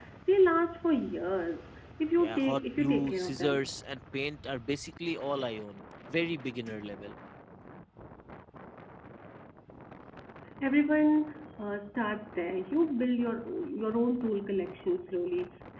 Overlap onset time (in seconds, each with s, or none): 2.2 s